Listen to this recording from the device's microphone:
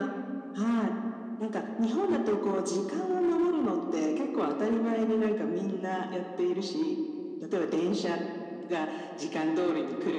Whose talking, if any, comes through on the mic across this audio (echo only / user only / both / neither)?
echo only